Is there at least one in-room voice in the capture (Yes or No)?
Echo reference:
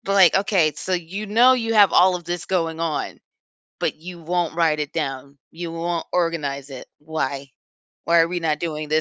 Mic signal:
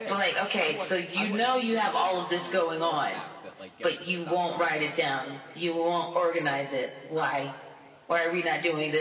Yes